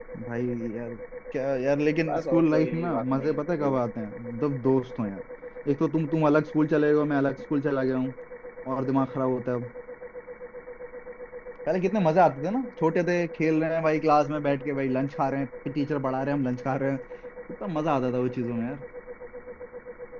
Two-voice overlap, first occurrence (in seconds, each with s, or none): 2.1 s